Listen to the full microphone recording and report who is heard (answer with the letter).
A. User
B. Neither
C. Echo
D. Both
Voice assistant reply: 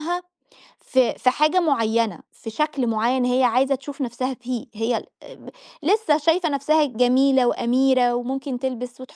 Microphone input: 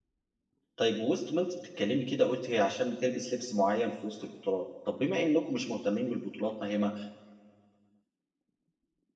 A